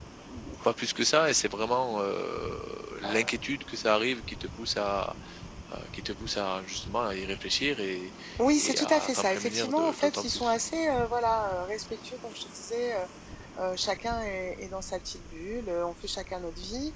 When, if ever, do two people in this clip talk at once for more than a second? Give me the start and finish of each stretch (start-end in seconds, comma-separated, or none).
8.6-10.5